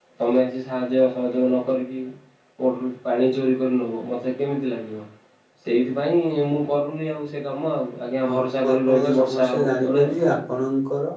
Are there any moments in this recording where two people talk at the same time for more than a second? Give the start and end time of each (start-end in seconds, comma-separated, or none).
8.3-10.2